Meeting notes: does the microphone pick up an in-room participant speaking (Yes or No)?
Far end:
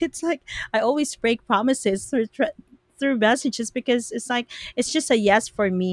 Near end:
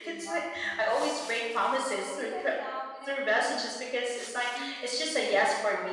Yes